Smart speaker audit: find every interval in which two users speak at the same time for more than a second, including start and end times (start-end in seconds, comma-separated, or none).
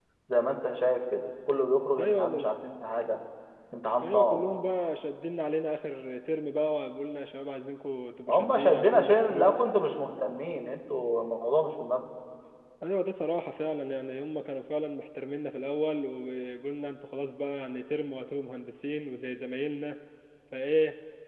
8.3-9.6